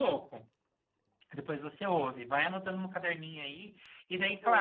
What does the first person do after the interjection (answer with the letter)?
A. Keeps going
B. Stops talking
A